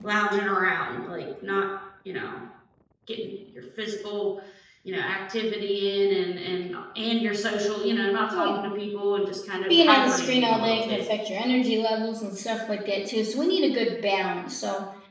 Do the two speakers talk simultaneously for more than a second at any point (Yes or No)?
Yes